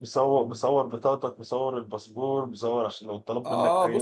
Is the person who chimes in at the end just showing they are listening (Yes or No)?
No